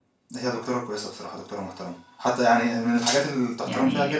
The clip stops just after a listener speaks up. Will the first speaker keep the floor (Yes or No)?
No